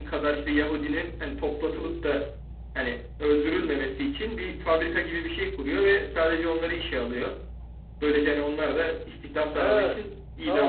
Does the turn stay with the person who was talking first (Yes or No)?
No